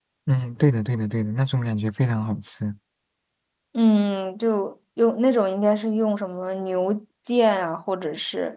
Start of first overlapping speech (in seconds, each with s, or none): none